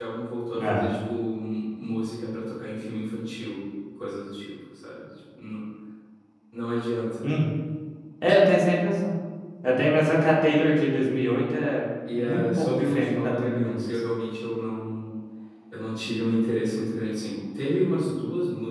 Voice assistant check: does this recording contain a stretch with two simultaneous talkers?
Yes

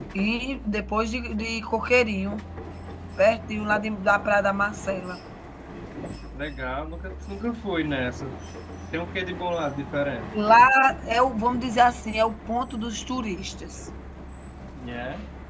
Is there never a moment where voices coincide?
Yes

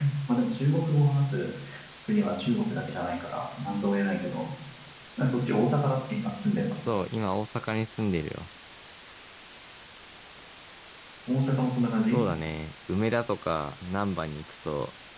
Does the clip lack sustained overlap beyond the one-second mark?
Yes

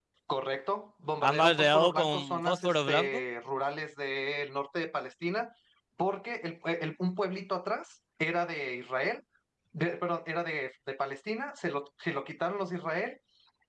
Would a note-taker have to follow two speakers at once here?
Yes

